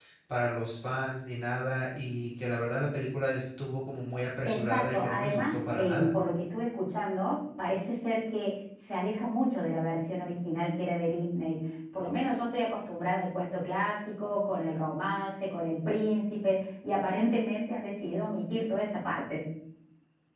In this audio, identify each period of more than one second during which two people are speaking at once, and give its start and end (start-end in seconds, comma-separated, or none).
4.4-6.1